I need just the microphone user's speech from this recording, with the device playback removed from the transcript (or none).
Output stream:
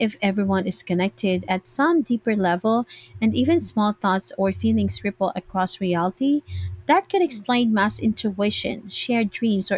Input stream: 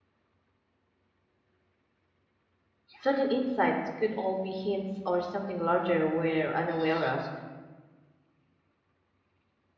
sudden insights could all be hints or something larger we're unaware of.